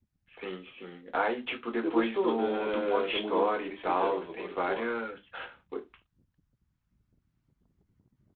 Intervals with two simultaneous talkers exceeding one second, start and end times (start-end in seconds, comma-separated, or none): 1.7-4.9